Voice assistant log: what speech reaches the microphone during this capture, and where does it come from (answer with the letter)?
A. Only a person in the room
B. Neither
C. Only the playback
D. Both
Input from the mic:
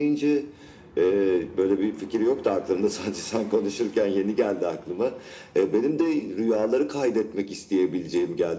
C